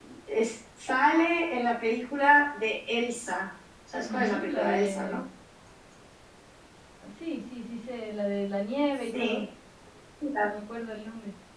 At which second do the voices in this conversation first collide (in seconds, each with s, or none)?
3.9 s